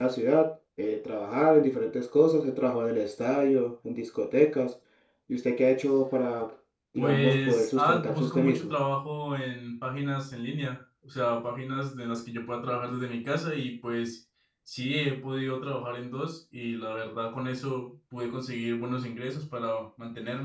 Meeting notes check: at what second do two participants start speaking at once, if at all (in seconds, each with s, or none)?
7.0 s